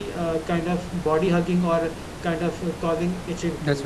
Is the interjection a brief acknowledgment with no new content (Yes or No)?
Yes